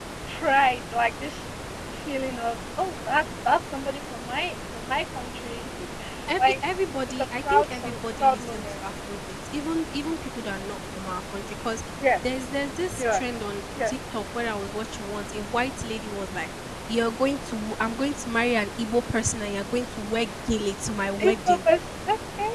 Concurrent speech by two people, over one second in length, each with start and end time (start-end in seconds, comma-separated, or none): 7.1-8.8